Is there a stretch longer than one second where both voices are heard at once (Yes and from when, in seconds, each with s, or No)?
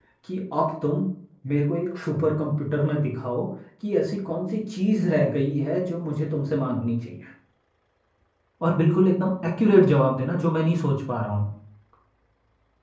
No